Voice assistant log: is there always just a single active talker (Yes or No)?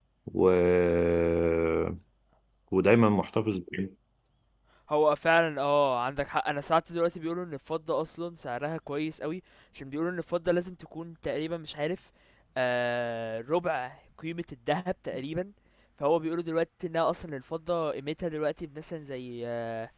Yes